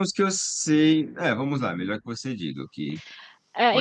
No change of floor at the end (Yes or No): No